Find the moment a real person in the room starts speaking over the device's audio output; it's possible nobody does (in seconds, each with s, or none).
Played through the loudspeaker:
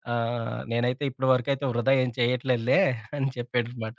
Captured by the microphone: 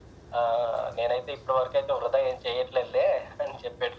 none